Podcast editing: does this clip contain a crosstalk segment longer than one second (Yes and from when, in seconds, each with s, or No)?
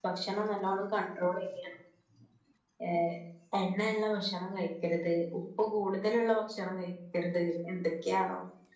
No